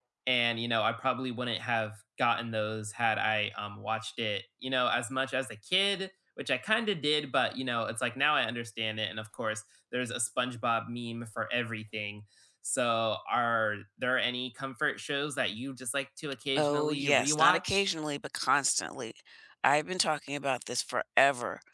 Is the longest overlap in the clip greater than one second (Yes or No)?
Yes